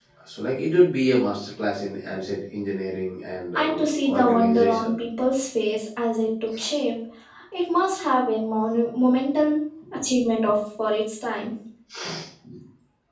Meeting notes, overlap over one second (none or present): present